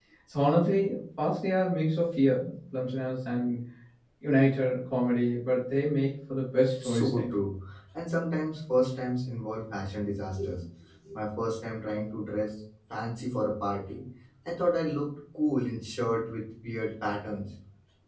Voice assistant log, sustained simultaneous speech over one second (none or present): none